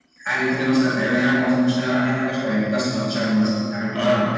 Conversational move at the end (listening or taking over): taking over